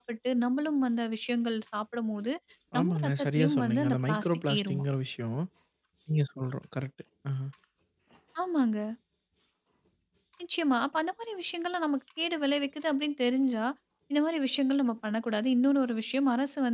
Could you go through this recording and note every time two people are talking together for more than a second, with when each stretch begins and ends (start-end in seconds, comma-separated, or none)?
2.8-4.8